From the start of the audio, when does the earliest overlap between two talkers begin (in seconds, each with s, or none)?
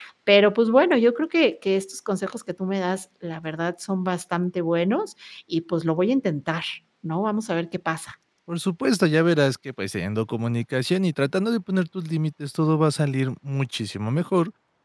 none